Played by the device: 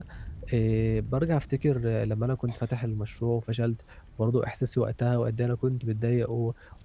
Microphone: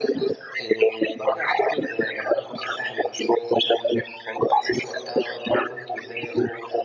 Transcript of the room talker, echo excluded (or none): none